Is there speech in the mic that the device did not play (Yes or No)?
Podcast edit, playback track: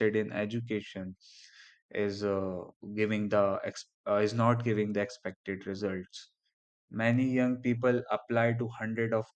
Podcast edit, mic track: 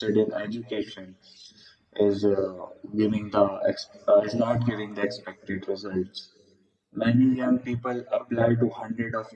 No